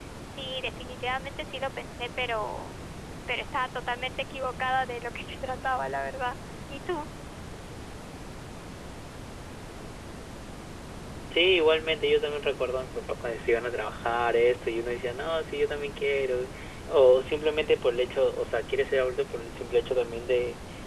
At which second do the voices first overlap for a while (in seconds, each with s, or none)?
none